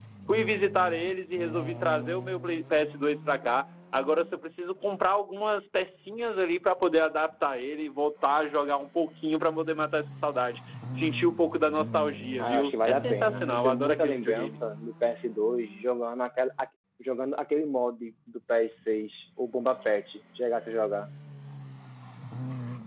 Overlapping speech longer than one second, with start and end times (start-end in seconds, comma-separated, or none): 12.4-14.6